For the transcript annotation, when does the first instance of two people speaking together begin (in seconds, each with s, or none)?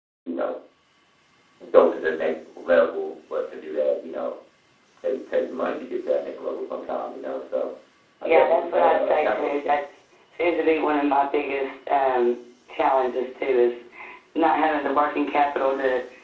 8.2 s